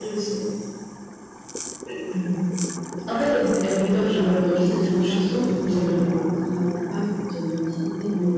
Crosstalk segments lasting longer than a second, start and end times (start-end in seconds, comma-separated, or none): 4.1-6.0